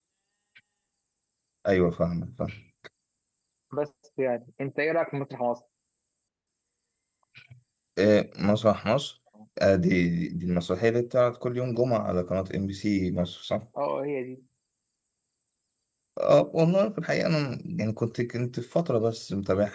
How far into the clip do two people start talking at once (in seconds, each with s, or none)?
none